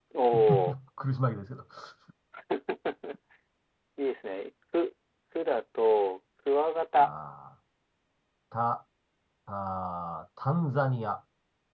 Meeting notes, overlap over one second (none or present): none